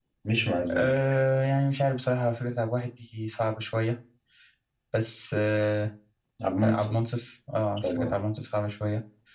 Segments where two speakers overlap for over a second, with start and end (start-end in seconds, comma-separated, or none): none